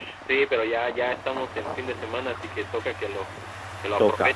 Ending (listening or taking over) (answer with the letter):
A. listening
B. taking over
B